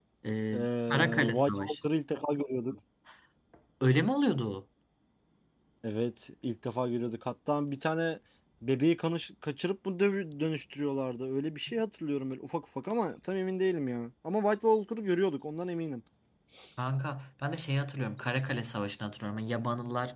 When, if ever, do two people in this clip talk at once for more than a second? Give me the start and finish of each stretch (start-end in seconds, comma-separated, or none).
0.5-1.8